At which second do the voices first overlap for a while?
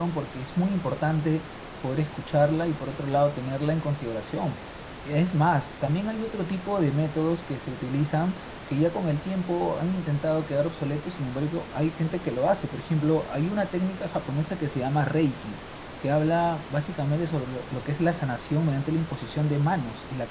none

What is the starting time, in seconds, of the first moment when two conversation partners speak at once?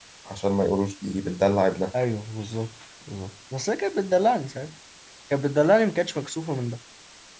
none

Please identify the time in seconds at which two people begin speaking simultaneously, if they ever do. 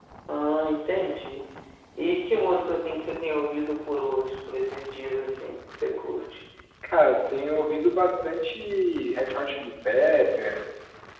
none

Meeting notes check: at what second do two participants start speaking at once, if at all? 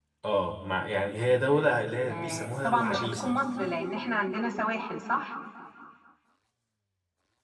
2.1 s

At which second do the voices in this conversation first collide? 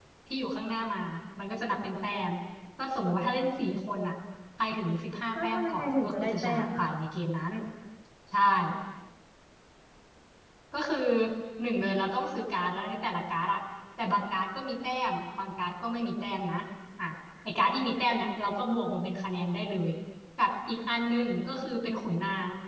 5.3 s

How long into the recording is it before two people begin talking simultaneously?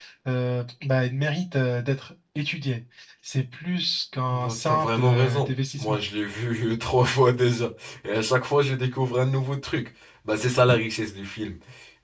4.3 s

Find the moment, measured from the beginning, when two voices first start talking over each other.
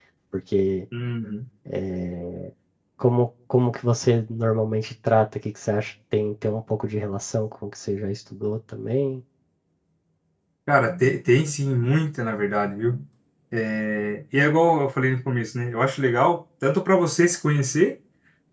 none

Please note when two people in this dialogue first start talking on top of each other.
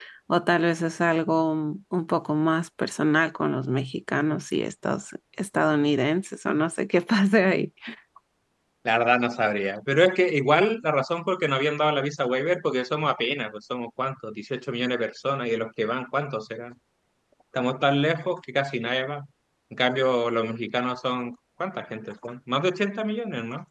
none

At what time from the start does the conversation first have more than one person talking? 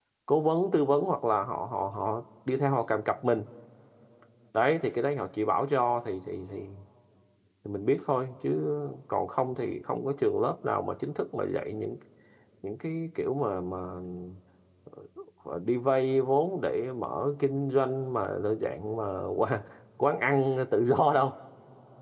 none

